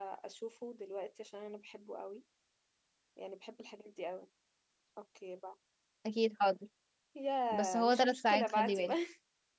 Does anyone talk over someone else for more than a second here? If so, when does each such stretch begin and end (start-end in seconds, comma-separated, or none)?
7.5-8.9